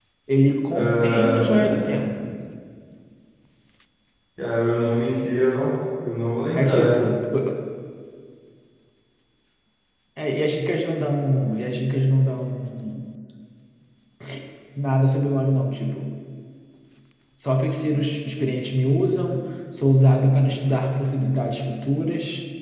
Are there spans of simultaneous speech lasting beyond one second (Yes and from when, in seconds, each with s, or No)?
Yes, from 0.7 s